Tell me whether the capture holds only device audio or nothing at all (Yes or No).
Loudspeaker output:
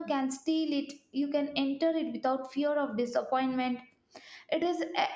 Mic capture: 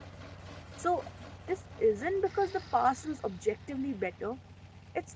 No